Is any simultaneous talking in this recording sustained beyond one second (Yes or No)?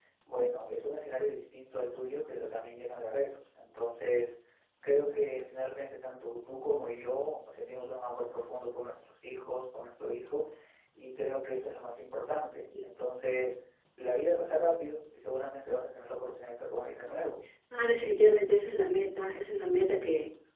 No